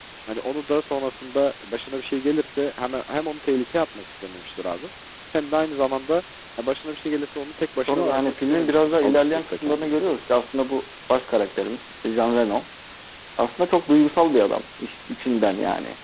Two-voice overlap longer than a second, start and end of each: 7.8-10.0

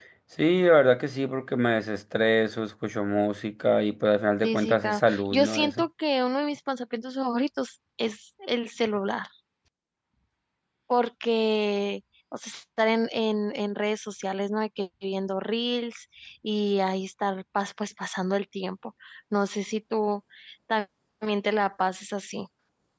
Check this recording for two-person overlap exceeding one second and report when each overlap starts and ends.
4.4-5.8

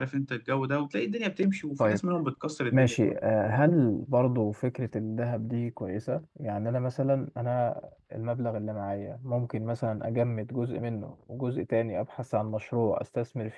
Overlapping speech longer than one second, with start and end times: none

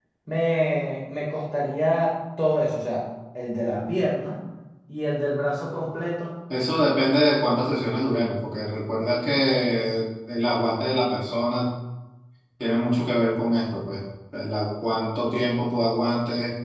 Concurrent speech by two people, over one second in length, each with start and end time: none

